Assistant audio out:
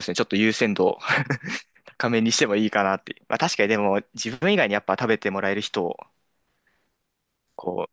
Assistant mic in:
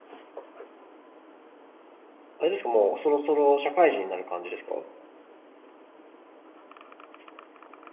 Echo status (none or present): none